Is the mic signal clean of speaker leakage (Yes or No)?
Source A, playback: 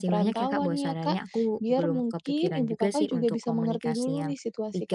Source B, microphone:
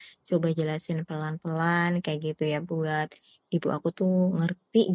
Yes